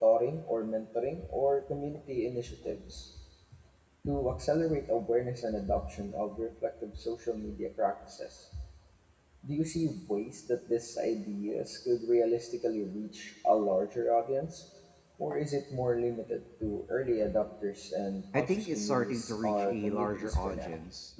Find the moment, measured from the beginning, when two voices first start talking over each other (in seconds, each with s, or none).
18.3 s